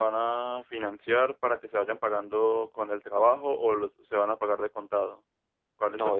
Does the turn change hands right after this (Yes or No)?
Yes